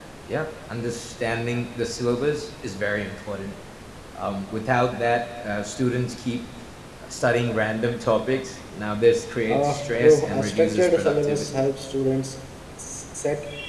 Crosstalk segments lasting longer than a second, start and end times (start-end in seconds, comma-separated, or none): 9.5-11.6